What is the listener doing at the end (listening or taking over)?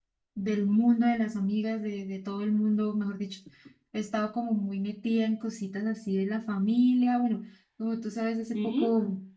listening